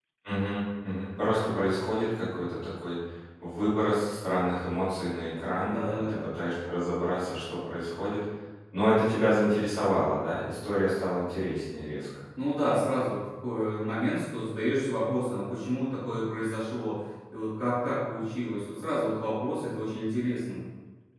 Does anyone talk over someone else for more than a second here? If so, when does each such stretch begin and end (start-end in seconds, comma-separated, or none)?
none